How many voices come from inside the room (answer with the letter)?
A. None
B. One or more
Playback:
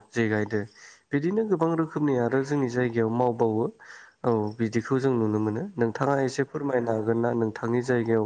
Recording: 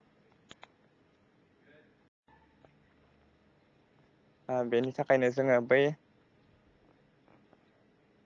B